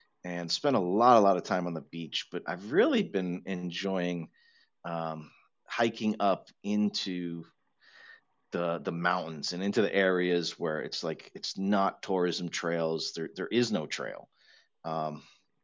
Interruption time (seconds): none

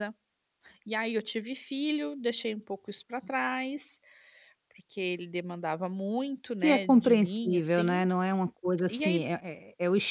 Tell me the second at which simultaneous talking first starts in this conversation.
6.6 s

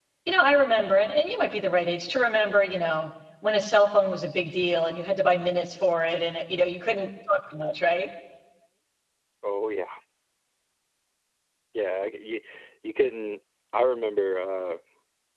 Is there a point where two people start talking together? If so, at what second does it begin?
none

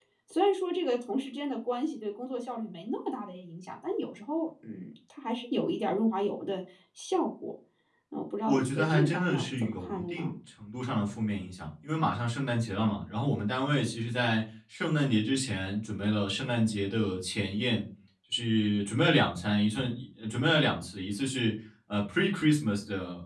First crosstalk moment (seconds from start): 8.5 s

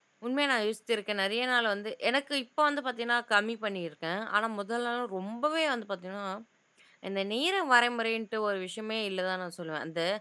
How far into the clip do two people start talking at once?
none

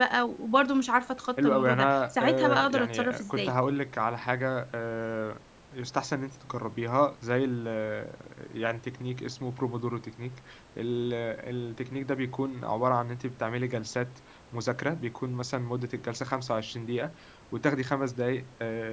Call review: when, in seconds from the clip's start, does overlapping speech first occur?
1.4 s

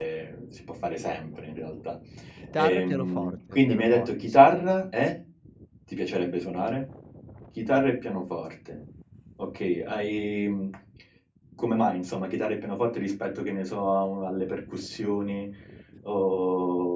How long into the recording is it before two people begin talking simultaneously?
2.6 s

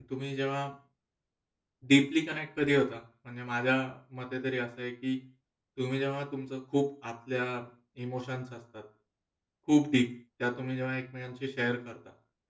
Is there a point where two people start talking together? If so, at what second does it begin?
none

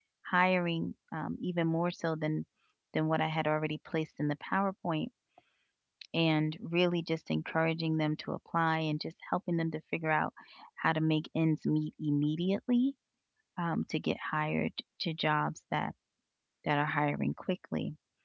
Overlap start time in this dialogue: none

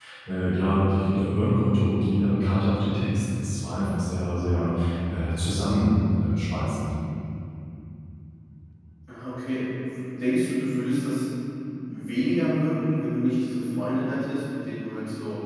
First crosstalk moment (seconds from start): none

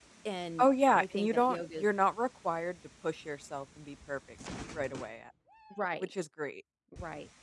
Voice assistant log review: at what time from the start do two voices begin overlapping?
0.6 s

